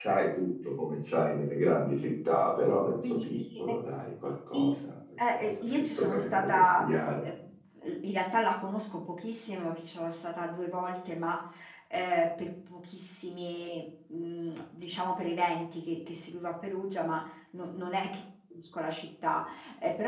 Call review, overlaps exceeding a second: present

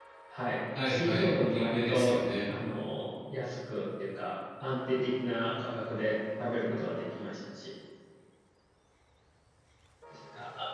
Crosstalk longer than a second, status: present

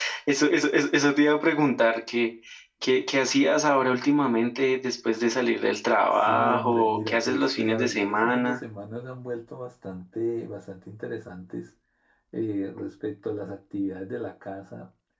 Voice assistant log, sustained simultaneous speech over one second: present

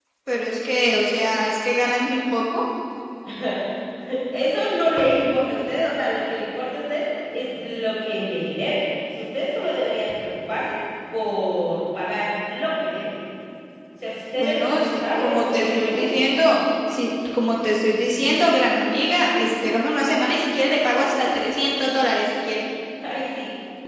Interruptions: present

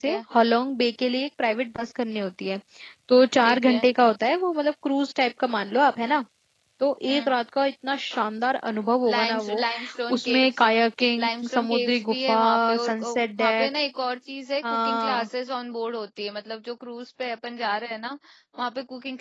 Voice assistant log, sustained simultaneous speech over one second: present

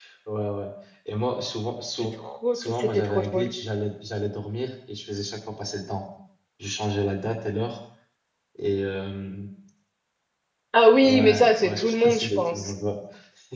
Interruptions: present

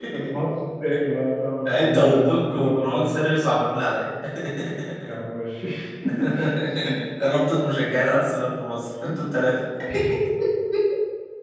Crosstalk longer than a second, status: present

